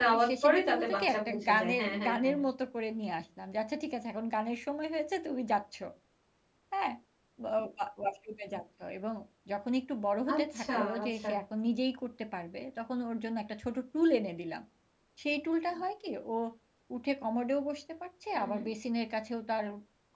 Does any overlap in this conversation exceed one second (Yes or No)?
Yes